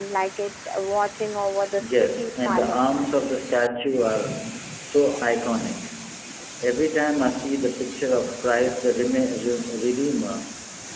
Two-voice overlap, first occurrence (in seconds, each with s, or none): 1.8 s